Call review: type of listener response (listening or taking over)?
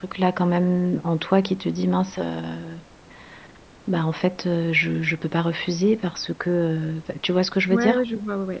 taking over